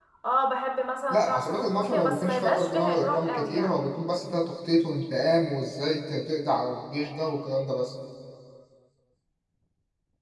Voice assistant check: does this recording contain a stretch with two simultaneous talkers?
Yes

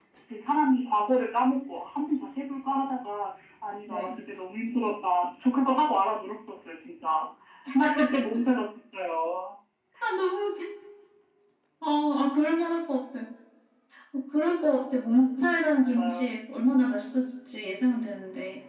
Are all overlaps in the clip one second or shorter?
Yes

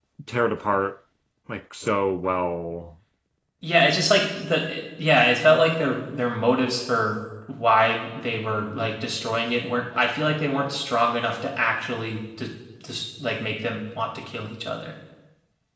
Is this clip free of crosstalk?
Yes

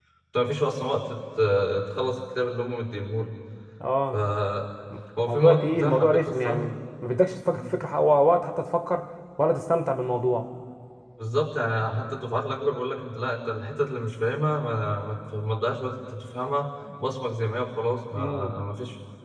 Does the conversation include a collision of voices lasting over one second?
Yes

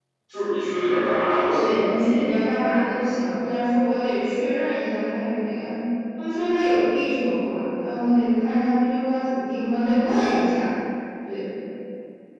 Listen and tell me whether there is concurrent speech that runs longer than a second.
No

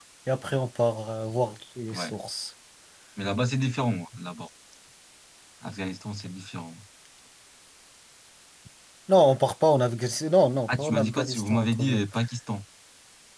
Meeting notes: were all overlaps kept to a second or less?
No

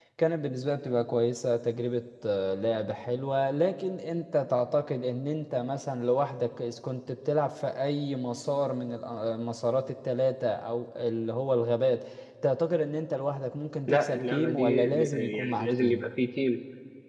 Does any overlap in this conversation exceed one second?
Yes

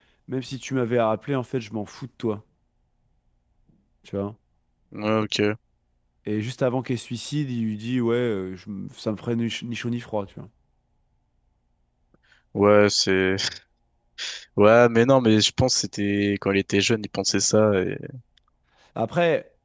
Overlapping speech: No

